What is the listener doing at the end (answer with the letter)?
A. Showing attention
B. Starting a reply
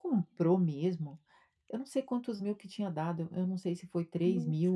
A